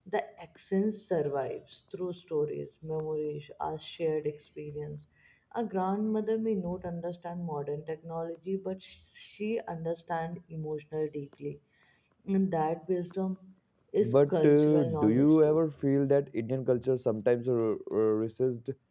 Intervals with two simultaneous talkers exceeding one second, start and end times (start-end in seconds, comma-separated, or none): 14.0-15.6